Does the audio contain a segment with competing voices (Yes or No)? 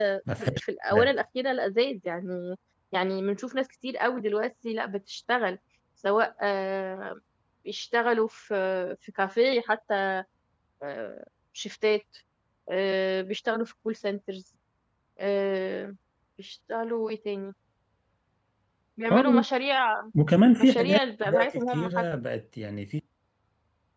Yes